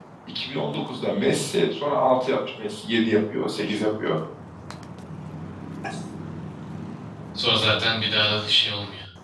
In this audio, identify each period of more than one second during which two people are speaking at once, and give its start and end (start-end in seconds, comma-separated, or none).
none